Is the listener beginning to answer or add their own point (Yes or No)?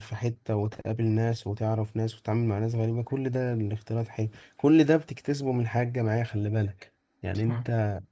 No